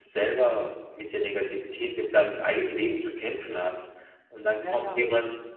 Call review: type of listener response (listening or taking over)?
listening